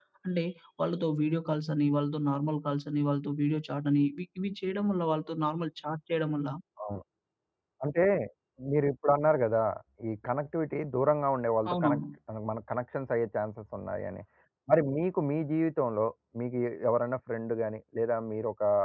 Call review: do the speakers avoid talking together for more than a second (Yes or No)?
Yes